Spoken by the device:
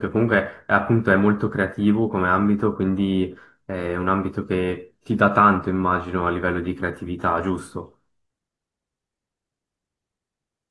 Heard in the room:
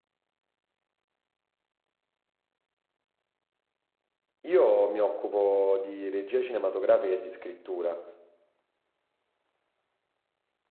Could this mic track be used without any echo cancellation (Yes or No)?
Yes